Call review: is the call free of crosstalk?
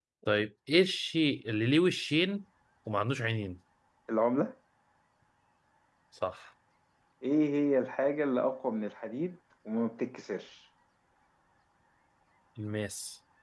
Yes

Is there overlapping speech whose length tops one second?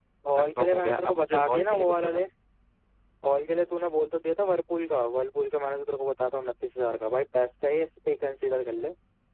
Yes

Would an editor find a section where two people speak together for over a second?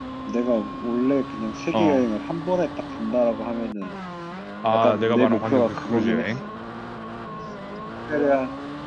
Yes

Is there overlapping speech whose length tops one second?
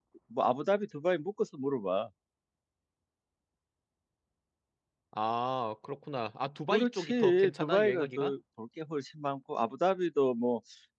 Yes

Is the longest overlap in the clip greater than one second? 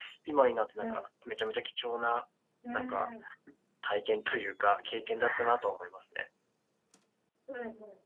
No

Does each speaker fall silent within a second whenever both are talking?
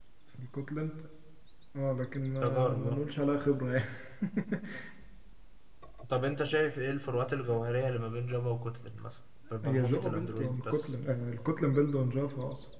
No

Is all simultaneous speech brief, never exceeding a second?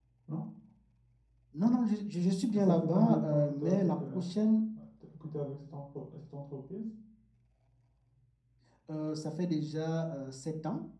No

